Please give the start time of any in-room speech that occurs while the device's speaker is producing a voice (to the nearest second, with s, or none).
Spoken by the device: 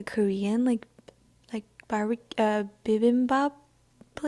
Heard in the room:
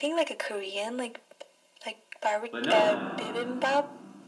3 s